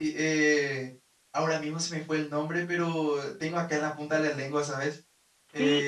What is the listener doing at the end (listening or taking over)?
taking over